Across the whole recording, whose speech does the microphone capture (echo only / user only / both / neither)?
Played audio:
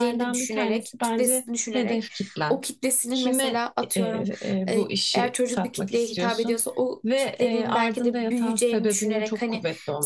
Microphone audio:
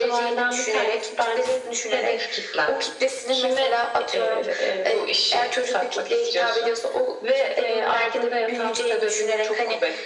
echo only